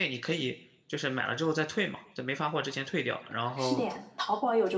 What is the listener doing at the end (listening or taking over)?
taking over